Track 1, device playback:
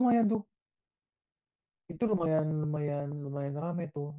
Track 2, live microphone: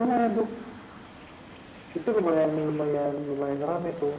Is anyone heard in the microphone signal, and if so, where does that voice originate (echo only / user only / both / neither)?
echo only